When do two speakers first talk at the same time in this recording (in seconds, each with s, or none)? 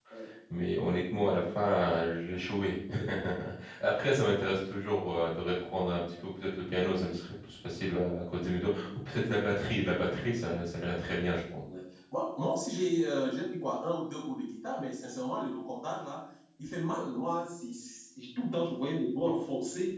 none